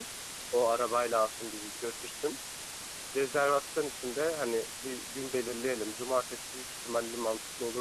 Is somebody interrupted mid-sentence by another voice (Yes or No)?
No